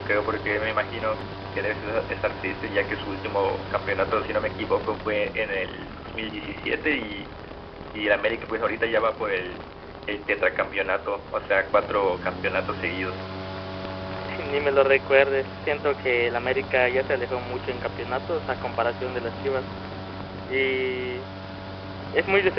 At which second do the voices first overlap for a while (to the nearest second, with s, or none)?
none